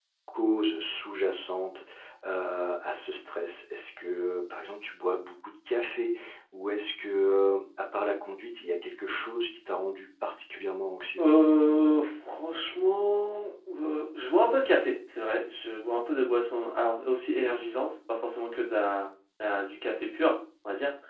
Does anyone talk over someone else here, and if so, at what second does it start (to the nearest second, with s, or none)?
none